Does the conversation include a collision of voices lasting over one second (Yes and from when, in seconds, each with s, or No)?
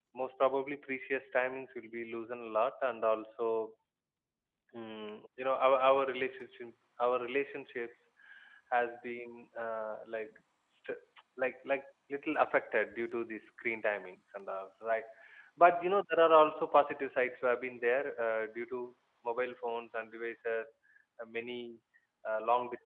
No